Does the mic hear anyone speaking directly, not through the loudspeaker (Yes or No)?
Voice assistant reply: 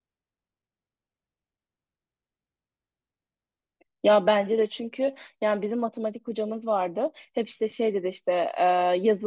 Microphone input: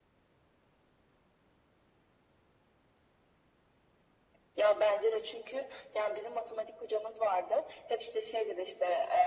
No